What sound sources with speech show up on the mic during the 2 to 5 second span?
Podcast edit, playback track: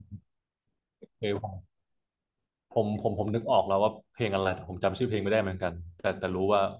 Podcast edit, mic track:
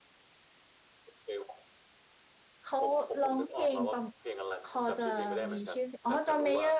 both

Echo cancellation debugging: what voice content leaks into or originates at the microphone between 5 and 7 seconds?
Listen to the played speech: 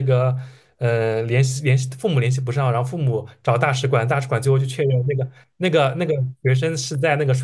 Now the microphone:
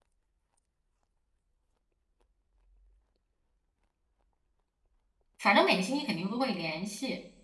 user only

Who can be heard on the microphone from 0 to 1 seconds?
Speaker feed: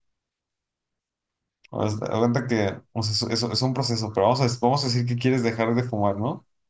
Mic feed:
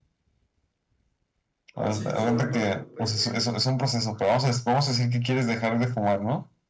neither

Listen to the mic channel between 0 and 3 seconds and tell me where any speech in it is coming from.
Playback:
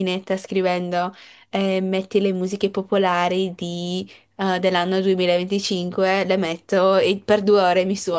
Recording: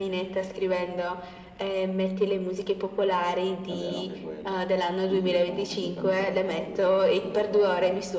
echo only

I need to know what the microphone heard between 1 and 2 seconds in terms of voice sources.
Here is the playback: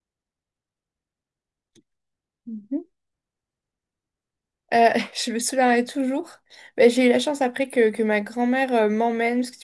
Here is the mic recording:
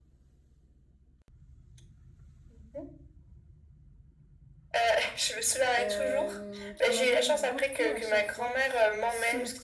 neither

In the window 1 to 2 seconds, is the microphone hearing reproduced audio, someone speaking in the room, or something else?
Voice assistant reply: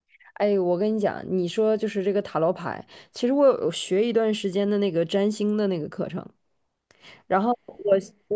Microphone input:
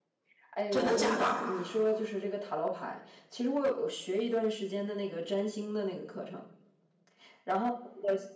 both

